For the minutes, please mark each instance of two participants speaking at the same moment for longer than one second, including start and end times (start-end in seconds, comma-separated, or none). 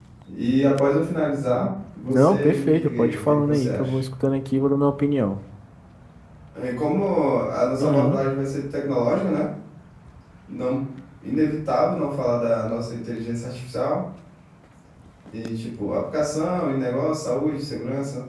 2.1-4.0